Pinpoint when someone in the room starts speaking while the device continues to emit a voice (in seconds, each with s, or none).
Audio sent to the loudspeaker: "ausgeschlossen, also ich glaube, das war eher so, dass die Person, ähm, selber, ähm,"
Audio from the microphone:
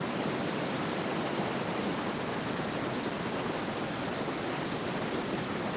none